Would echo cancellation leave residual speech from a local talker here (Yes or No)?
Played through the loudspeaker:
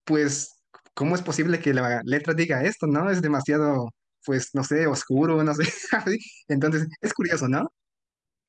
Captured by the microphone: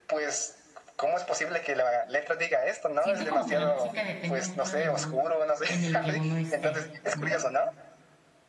Yes